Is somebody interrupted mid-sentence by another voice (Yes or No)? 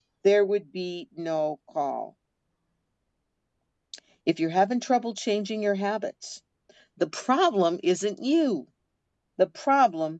No